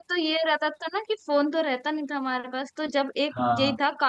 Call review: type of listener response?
listening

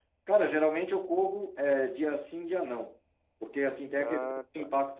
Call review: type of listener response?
listening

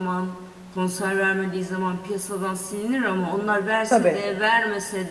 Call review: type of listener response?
listening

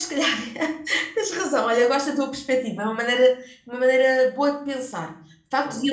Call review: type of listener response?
listening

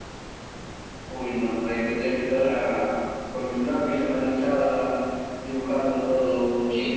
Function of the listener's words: taking over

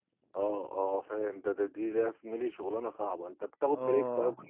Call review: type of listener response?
taking over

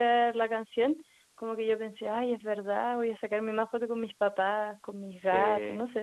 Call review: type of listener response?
taking over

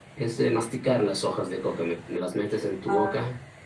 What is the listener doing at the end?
listening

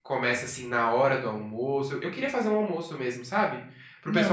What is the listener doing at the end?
listening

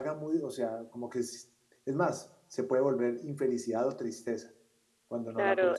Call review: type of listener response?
taking over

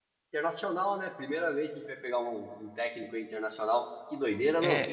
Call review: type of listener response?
taking over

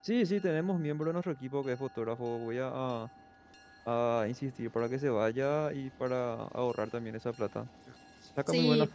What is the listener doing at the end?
listening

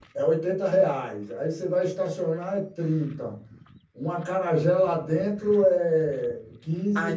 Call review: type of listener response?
taking over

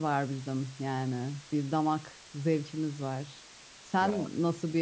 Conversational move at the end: listening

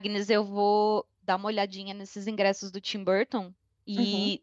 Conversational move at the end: listening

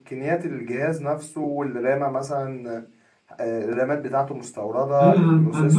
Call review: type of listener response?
taking over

